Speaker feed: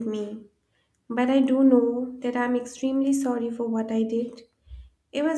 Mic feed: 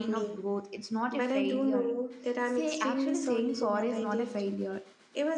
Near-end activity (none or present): present